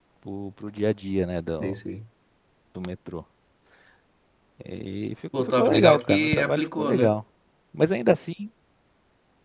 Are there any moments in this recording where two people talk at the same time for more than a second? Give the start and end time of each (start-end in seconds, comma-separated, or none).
5.4-7.1